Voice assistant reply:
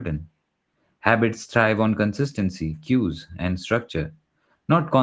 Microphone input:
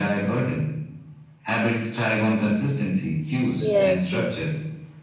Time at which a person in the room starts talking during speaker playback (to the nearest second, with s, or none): 4 s